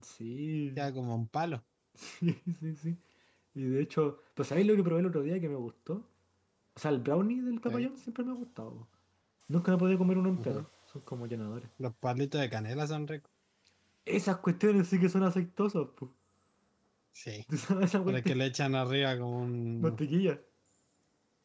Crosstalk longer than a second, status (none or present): none